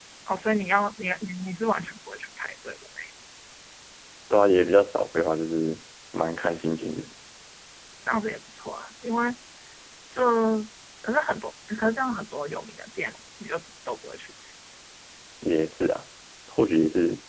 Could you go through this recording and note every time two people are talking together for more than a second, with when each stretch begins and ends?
none

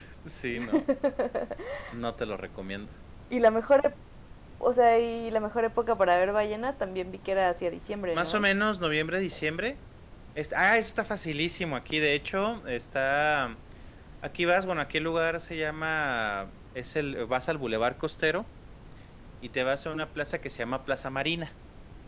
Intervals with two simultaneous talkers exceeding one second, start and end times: none

